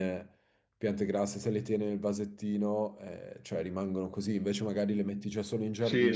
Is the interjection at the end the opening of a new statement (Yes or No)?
Yes